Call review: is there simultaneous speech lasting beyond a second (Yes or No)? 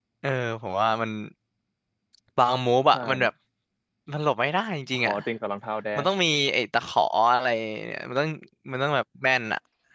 No